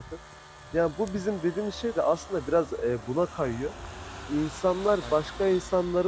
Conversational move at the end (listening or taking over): listening